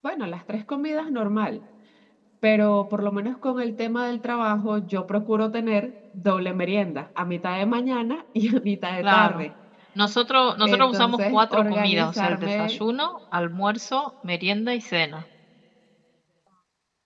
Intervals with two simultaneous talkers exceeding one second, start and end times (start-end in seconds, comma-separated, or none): 10.6-12.8